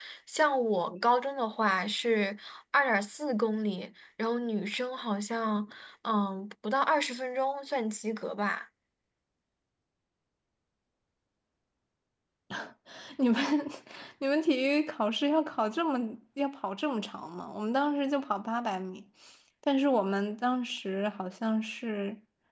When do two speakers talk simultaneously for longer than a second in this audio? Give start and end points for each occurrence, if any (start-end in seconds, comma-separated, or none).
none